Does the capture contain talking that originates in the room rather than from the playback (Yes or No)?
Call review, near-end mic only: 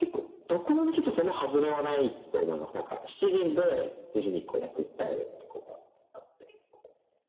No